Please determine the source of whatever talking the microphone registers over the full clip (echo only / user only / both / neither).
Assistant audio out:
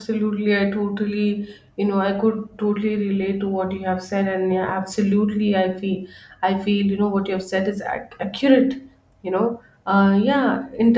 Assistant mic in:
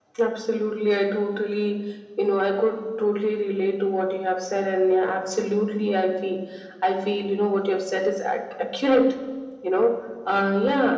echo only